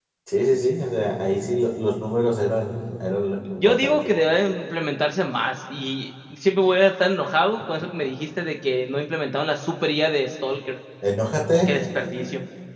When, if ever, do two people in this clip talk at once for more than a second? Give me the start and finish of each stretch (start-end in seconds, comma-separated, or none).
none